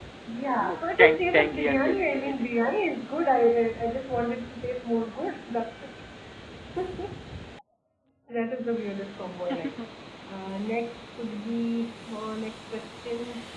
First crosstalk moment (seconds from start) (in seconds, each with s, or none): 0.6 s